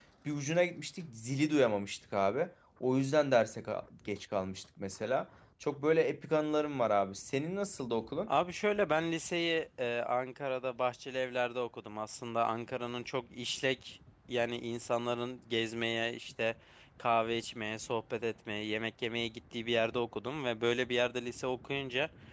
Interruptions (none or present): none